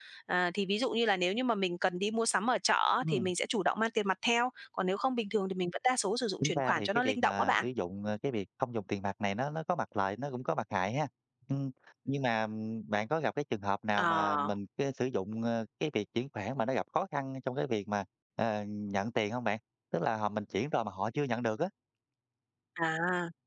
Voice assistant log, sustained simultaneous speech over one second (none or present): present